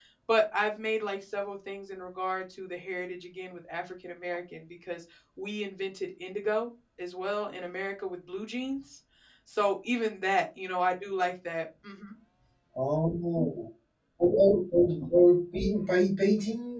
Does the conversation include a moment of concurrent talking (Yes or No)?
No